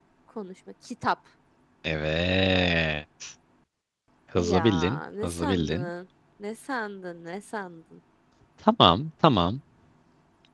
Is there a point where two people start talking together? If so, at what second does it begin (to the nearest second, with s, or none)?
4 s